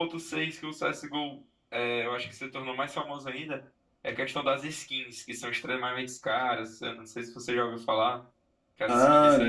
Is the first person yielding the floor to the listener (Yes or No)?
No